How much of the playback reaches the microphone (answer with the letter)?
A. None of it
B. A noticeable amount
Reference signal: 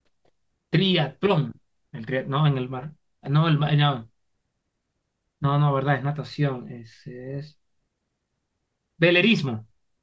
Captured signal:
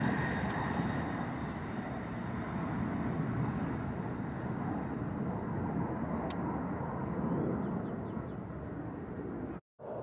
A